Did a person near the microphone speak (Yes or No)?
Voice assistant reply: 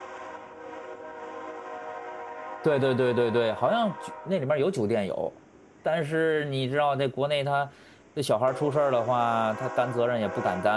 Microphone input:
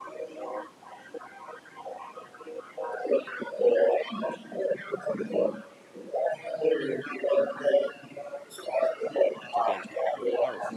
Yes